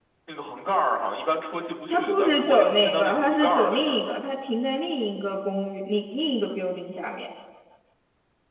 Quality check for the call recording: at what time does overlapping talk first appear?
1.9 s

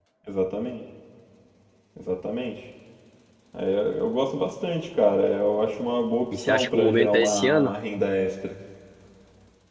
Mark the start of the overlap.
6.3 s

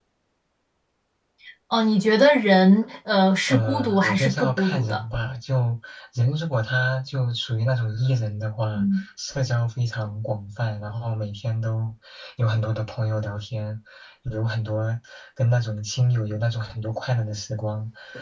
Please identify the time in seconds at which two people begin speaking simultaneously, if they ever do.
3.5 s

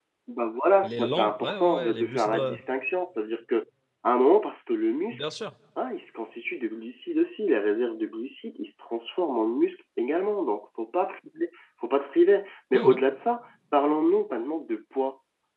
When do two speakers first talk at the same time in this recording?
0.8 s

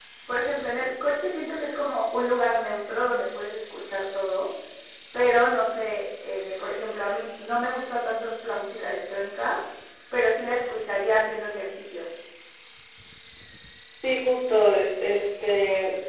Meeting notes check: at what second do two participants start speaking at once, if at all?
none

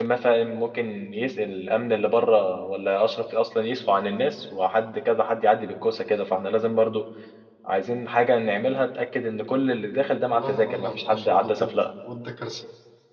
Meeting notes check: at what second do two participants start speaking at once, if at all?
10.3 s

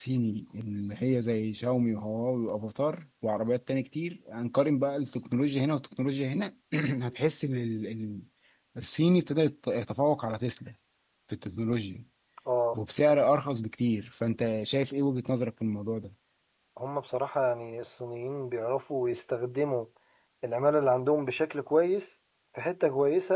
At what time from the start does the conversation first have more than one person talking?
none

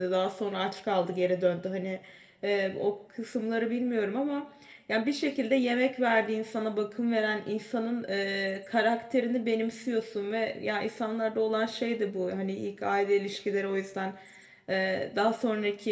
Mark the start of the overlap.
none

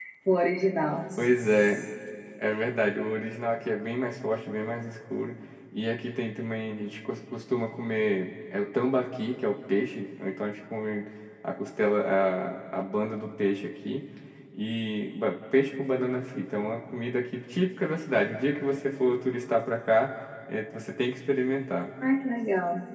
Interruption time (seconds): none

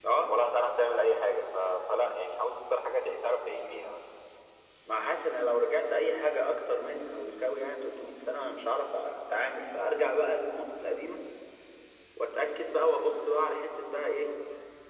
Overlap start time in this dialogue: none

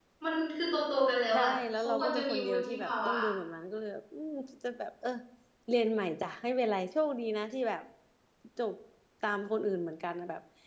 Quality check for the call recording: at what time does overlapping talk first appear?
1.3 s

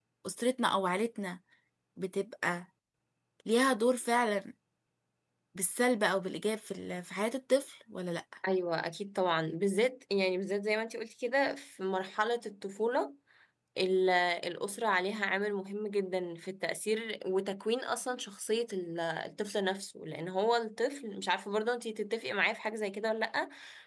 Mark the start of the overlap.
none

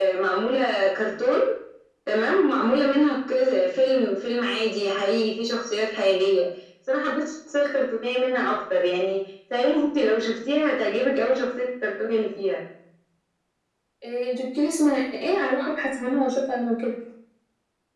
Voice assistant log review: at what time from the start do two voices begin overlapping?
none

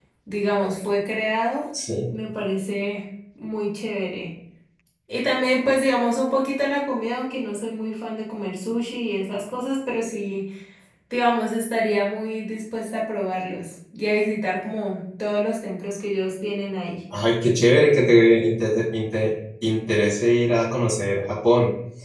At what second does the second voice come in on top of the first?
none

